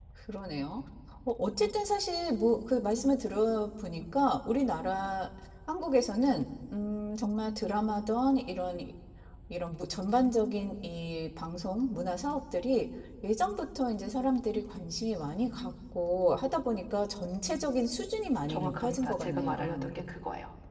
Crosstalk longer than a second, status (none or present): present